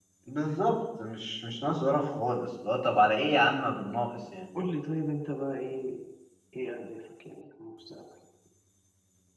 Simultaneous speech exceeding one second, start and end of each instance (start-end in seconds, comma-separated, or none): none